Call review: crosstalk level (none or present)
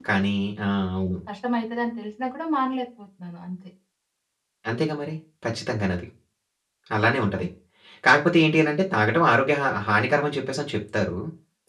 none